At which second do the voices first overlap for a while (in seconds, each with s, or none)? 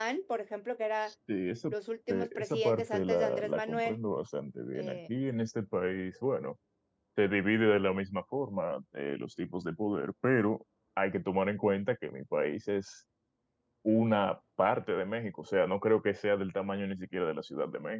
2.1 s